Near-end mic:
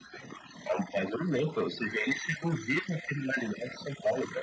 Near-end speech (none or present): none